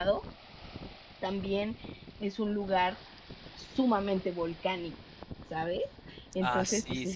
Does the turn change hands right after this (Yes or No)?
Yes